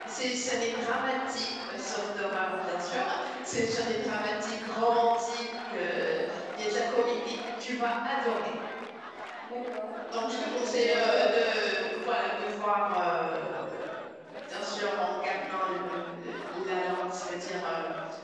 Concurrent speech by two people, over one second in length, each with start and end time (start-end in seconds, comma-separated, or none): 10.1-11.4